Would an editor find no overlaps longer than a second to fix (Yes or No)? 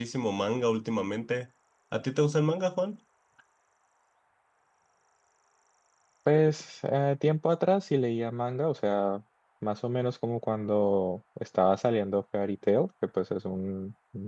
Yes